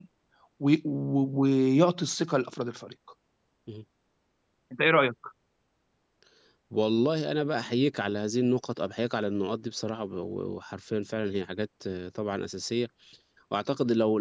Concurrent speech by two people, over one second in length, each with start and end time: none

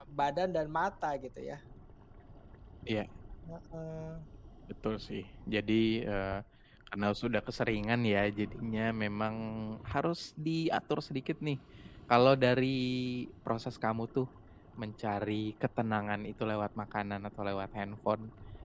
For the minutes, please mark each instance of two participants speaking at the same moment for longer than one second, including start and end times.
none

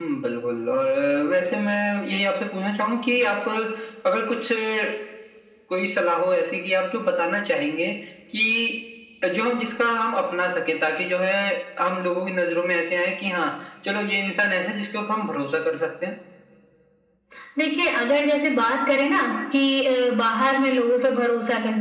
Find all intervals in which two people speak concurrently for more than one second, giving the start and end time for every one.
none

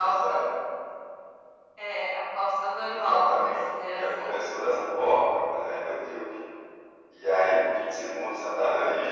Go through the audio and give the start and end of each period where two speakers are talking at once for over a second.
2.8-4.3

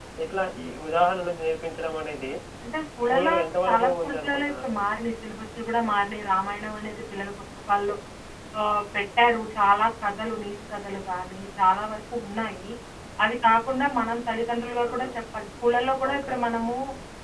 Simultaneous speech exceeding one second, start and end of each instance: 3.1-4.7

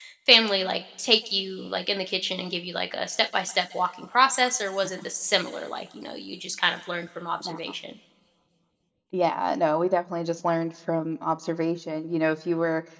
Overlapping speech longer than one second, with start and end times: none

